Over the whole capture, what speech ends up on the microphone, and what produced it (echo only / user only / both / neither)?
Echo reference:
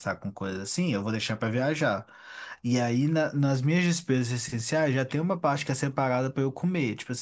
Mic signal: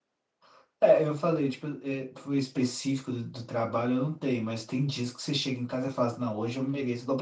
user only